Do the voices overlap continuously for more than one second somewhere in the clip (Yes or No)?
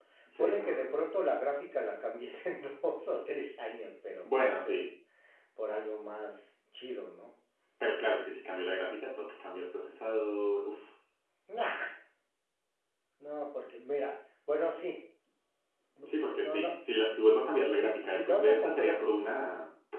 Yes